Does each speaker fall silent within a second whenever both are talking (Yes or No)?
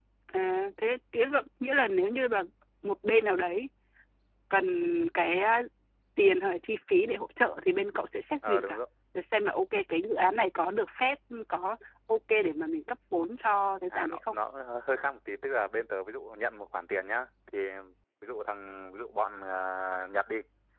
Yes